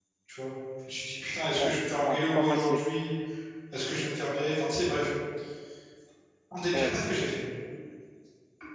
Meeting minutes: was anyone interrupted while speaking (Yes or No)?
Yes